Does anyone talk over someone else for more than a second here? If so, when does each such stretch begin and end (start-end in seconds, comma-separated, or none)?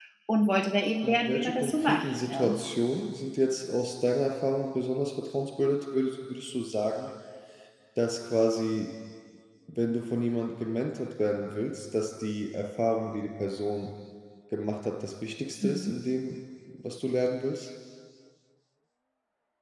1.0-2.6